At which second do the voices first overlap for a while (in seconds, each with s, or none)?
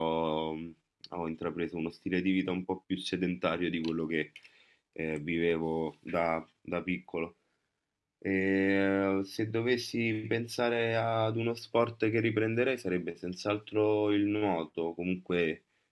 none